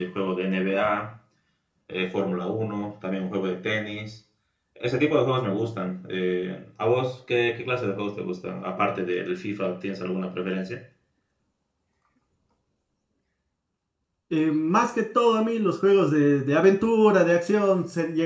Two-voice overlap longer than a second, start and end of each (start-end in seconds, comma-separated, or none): none